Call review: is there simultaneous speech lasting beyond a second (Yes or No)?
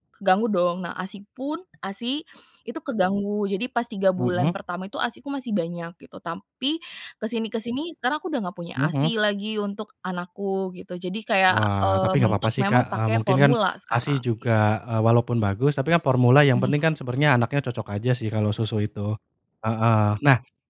Yes